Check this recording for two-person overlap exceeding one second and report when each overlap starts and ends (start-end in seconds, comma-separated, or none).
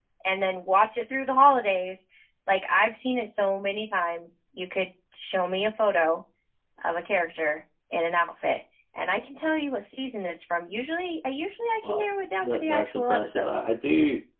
11.8-13.5